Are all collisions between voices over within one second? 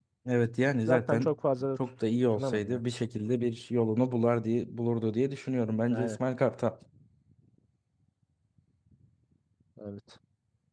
Yes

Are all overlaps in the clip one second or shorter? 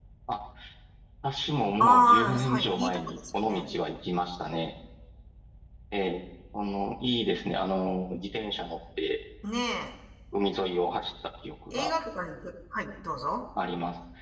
No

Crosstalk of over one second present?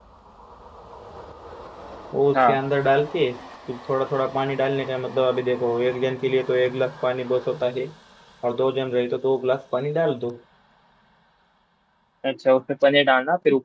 No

